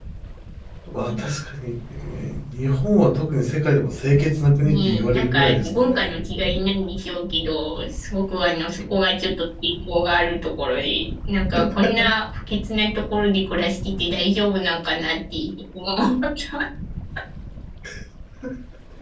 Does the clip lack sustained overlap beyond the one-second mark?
No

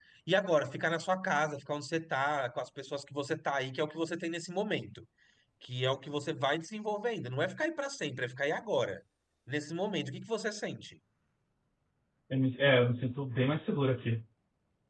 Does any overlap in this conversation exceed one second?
No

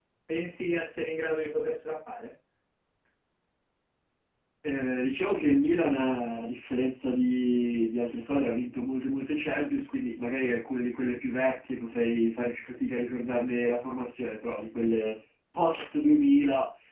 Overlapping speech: No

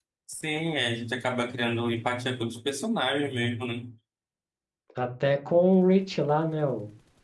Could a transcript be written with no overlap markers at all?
Yes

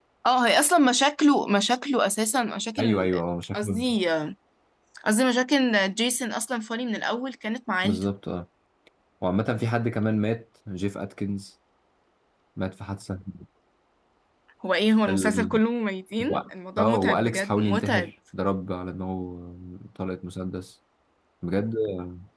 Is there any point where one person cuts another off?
Yes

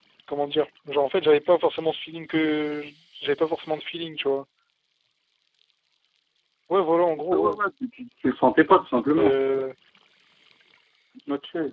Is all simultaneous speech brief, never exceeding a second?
Yes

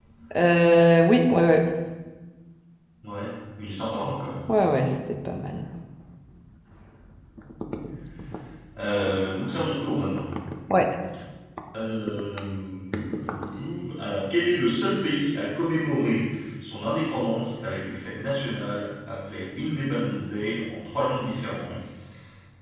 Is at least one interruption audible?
No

